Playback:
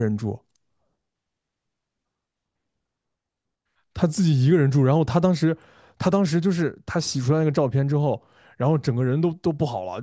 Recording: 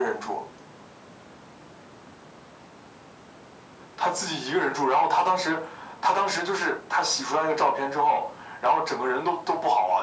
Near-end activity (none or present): none